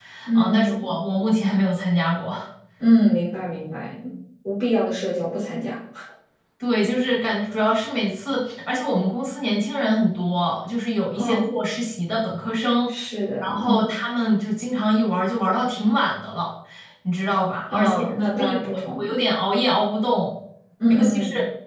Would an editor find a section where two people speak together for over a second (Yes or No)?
Yes